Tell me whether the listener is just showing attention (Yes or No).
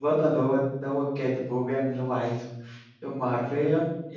Yes